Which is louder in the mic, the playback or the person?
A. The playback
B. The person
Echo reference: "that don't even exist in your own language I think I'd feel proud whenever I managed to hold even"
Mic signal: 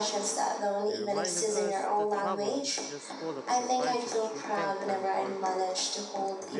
A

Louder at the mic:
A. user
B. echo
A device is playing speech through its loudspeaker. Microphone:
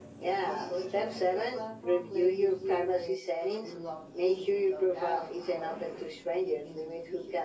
B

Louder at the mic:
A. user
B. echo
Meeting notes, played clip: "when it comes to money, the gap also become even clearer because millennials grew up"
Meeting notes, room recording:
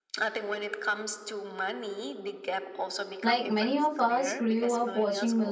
A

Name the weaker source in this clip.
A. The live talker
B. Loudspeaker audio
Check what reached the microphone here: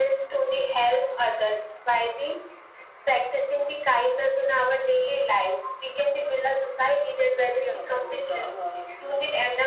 A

